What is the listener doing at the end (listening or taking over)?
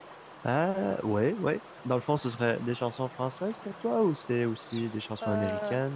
taking over